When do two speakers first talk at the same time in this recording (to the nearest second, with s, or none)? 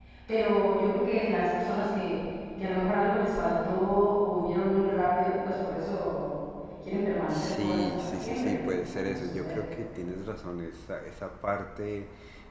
7 s